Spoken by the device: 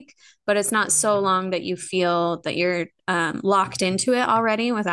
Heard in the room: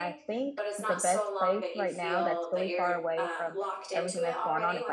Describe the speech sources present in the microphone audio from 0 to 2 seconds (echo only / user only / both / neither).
both